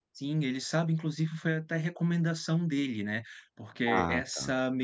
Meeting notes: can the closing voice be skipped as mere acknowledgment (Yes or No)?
Yes